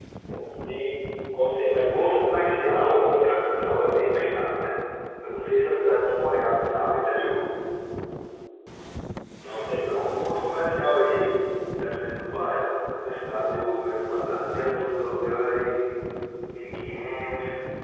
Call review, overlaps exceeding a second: present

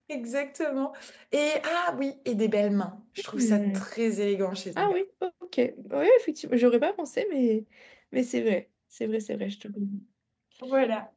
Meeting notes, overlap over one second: none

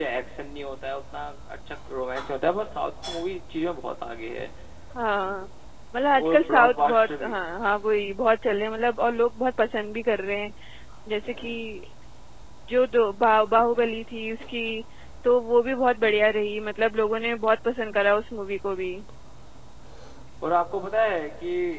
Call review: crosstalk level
present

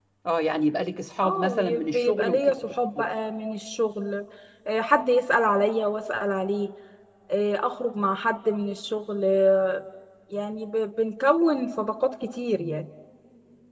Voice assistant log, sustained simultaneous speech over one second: present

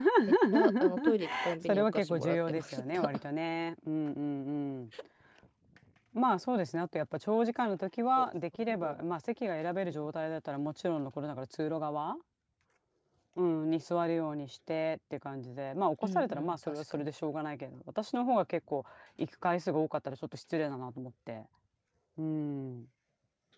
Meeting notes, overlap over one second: present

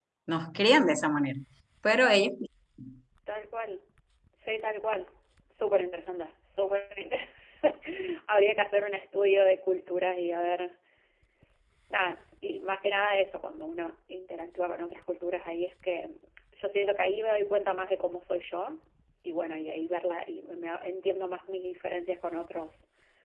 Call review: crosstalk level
none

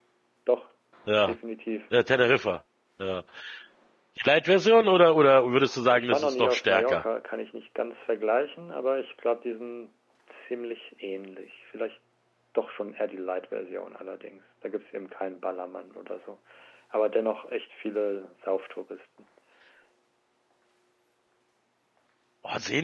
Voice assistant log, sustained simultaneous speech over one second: present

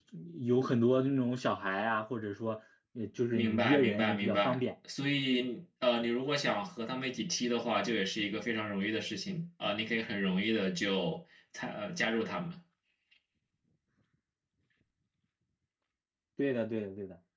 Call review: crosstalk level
present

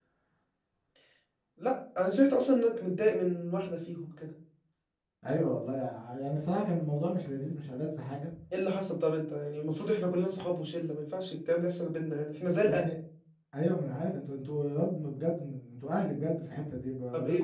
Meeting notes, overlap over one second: none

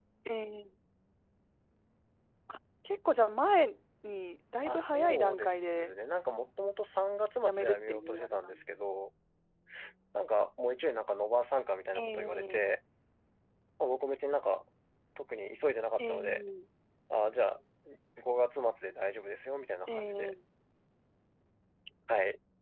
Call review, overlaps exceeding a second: present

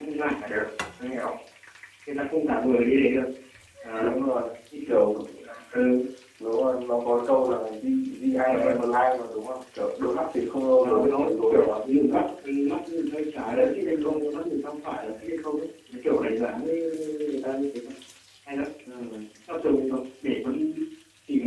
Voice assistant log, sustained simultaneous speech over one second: present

